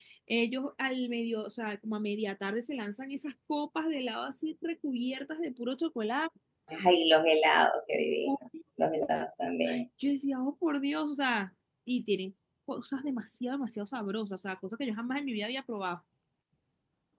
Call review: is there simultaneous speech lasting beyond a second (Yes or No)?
No